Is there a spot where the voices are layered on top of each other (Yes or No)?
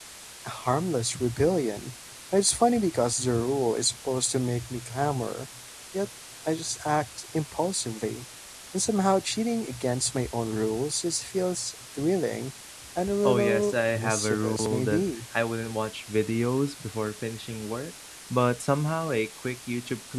Yes